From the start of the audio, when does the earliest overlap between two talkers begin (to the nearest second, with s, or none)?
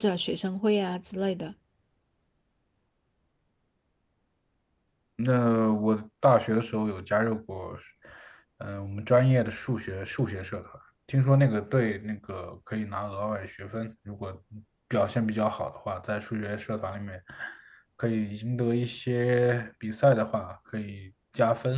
none